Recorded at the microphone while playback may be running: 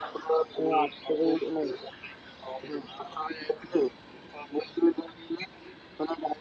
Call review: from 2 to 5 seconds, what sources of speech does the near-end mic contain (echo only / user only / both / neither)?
echo only